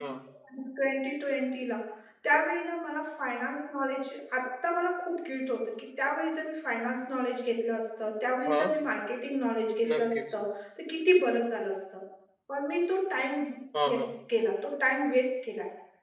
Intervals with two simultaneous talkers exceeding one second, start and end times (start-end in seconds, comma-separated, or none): none